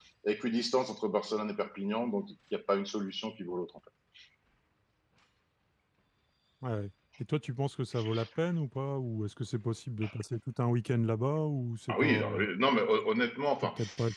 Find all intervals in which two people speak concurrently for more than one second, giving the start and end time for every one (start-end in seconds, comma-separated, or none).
none